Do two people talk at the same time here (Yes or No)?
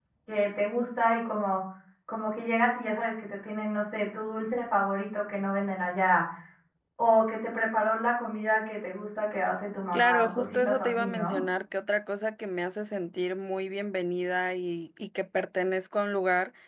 Yes